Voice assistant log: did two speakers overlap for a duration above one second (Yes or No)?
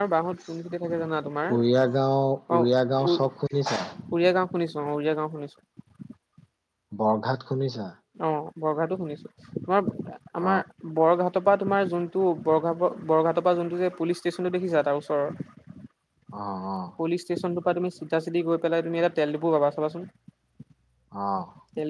No